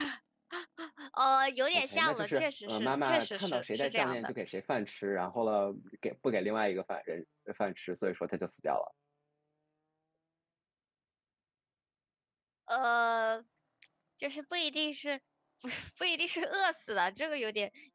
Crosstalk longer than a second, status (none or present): present